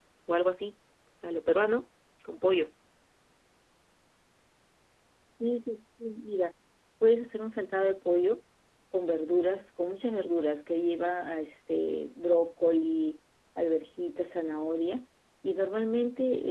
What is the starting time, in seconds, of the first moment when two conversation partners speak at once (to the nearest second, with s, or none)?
none